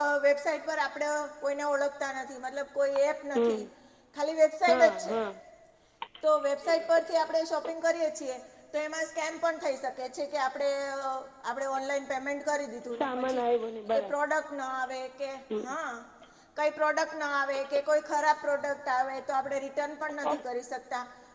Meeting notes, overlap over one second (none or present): none